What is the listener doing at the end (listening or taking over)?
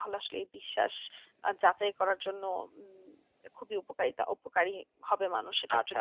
taking over